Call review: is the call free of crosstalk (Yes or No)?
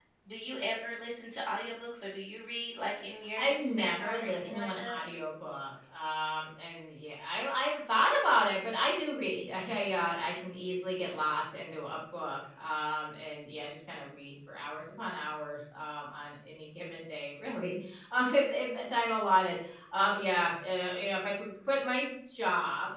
No